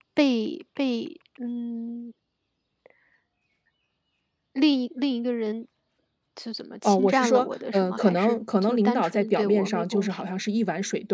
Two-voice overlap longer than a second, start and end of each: 6.8-10.3

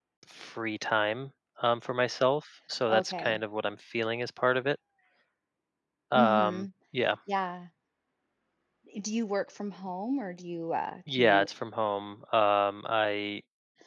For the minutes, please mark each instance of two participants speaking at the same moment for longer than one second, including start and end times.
none

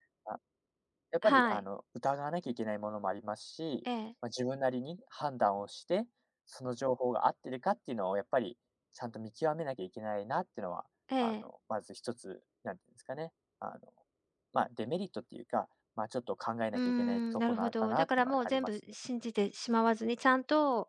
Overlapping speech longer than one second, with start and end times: 16.7-18.7

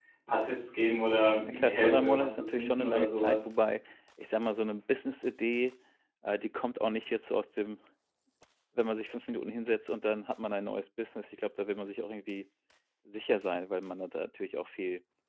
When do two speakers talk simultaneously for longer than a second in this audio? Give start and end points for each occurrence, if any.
1.4-3.5

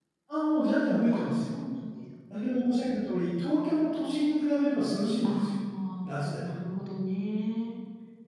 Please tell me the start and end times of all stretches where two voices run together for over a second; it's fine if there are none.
none

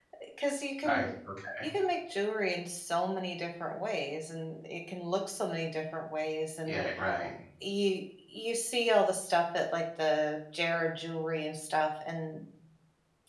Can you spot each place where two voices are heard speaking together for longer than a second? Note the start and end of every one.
none

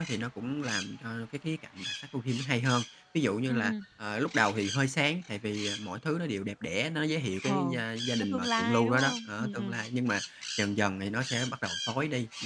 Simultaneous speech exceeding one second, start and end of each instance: 8.2-9.8

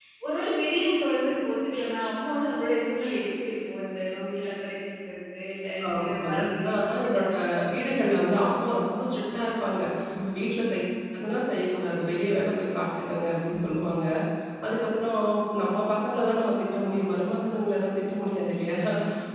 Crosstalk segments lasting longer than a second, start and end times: 5.9-7.2

